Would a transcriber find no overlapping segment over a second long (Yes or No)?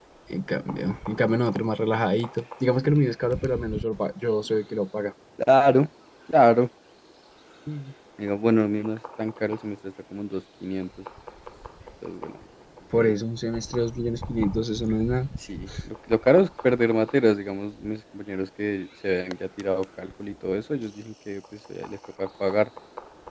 Yes